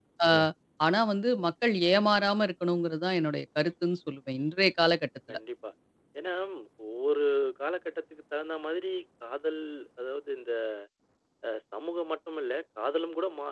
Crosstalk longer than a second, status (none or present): none